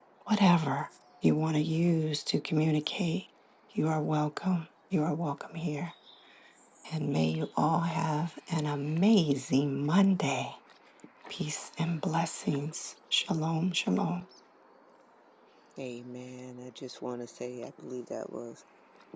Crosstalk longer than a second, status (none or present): none